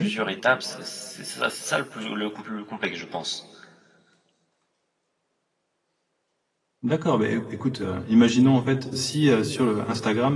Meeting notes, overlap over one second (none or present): none